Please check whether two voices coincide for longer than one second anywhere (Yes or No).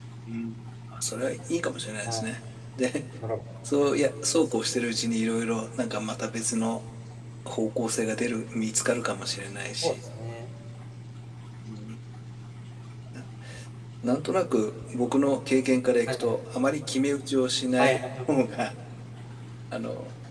No